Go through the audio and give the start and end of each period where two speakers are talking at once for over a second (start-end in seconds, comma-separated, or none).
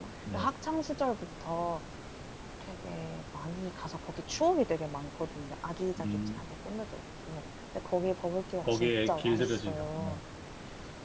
8.6-10.2